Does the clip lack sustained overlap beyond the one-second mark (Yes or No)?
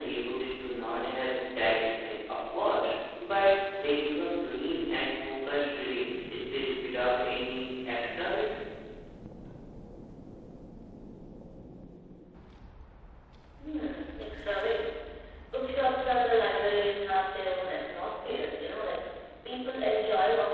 Yes